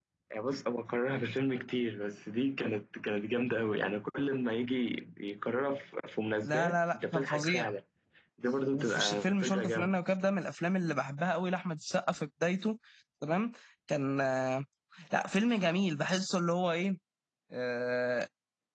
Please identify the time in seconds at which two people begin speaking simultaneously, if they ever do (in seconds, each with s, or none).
6.4 s